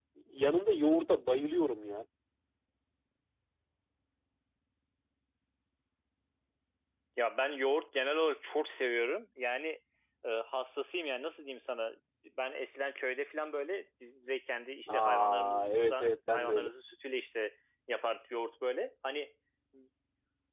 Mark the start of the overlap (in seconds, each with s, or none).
14.9 s